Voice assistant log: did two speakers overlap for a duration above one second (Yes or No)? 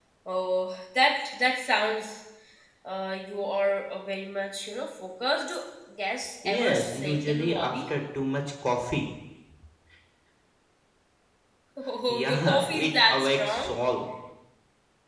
Yes